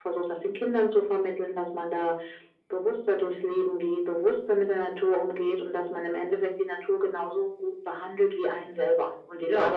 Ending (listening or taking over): listening